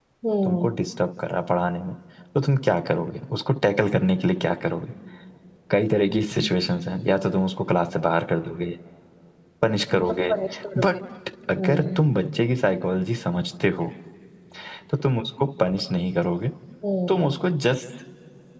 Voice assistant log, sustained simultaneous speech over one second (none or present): none